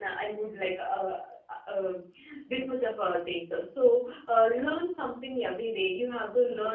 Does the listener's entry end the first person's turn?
No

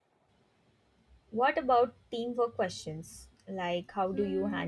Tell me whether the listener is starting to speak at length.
Yes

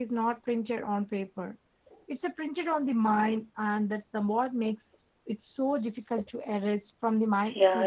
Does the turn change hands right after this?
Yes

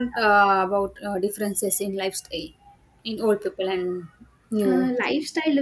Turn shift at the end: Yes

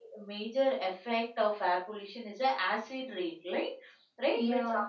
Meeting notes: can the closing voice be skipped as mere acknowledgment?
Yes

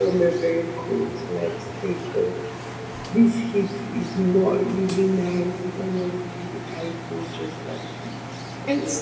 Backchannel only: No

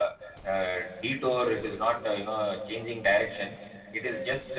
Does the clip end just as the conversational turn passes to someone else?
No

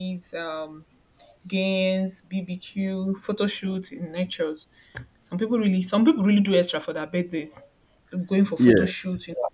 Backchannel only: Yes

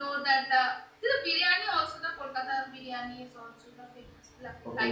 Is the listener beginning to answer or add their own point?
Yes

